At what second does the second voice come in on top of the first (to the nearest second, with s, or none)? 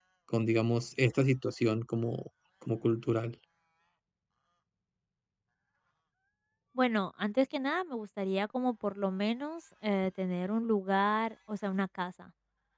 none